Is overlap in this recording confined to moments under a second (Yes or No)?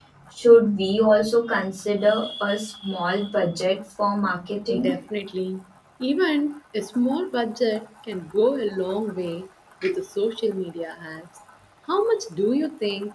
Yes